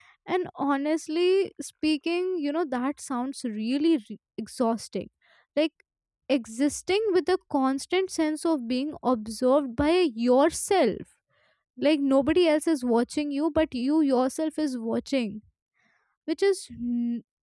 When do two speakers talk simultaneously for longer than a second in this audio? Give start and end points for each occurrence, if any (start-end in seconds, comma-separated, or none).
none